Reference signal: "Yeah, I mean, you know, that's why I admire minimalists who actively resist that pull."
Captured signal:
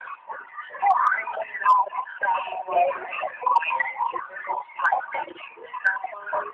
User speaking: No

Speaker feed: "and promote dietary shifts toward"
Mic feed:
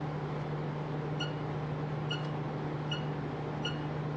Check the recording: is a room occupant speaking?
No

